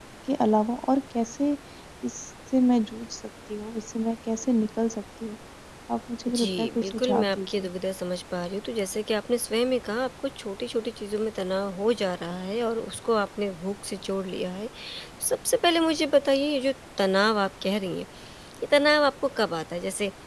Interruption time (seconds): 6.4 s

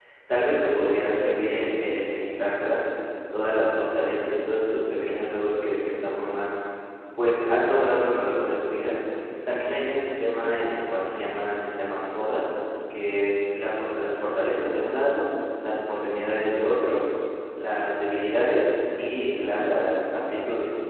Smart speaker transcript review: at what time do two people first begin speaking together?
none

